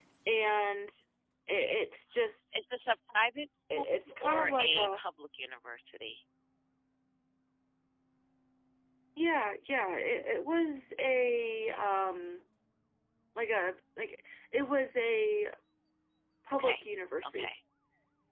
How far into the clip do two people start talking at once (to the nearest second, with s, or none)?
4 s